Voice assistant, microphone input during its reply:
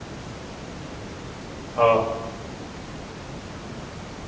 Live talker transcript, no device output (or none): آه.